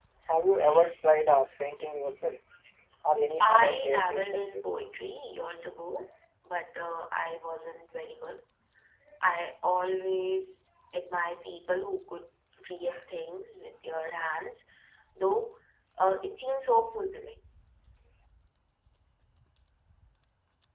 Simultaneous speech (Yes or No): Yes